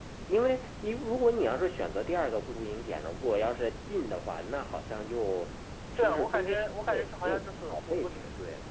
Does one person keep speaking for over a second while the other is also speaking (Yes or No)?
Yes